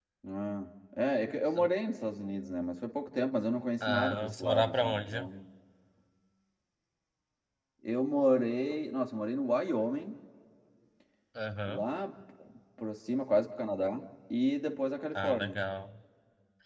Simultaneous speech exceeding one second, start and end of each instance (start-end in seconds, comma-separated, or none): 3.8-5.3